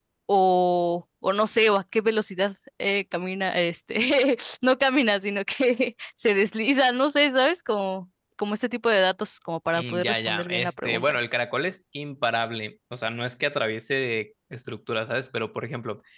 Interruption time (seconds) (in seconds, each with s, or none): 9.7 s